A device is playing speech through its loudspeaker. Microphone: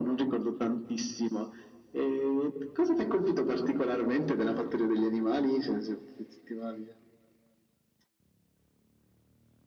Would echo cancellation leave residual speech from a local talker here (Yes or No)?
No